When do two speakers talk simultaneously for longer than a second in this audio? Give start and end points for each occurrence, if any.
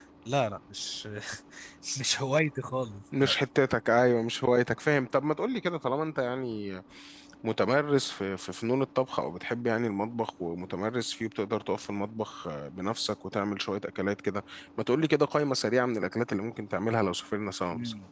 none

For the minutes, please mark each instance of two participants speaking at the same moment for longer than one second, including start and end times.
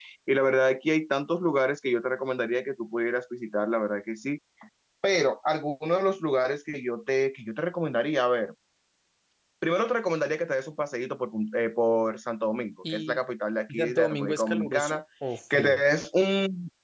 13.7-15.0

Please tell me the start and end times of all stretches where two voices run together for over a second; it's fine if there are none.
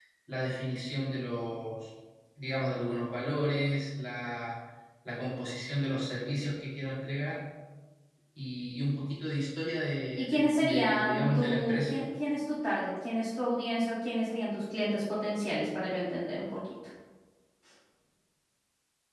10.2-12.0

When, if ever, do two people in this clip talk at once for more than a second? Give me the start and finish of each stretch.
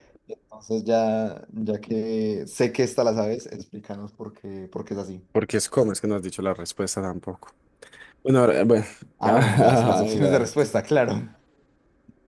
9.4-10.6

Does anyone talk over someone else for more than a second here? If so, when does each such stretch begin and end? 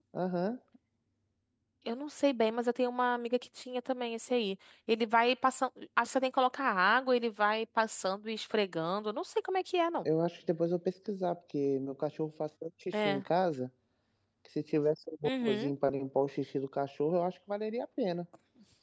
none

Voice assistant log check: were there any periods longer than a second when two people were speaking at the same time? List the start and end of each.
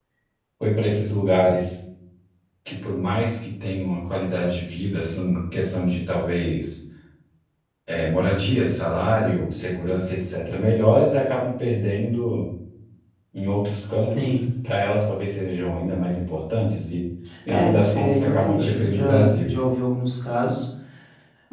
17.5-19.5

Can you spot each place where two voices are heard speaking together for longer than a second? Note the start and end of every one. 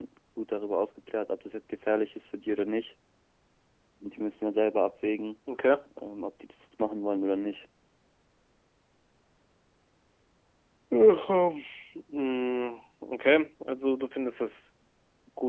none

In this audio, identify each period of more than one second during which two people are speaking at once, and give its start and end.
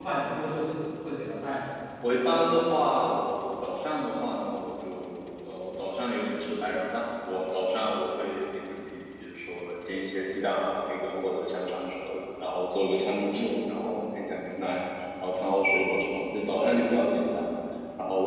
none

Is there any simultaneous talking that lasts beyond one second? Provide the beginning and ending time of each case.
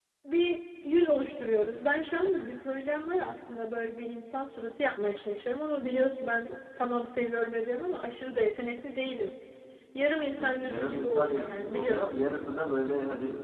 10.4-12.2

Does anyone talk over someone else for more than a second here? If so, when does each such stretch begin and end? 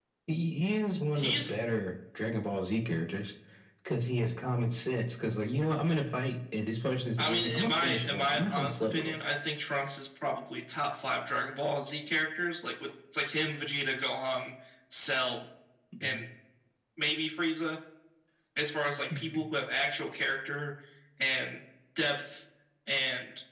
7.2-9.2

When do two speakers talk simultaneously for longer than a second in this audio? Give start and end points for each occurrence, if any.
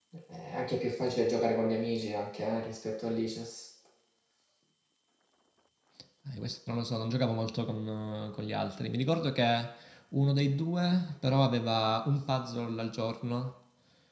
none

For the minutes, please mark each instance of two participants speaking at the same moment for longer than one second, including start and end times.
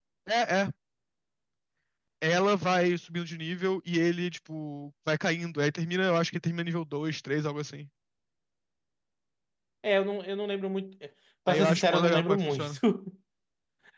11.5-12.7

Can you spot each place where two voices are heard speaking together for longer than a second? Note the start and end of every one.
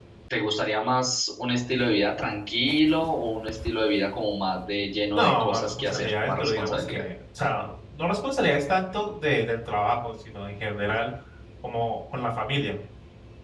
5.1-7.1

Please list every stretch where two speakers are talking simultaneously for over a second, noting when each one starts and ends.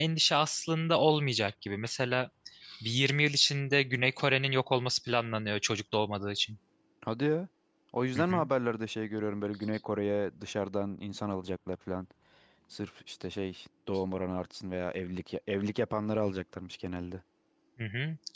none

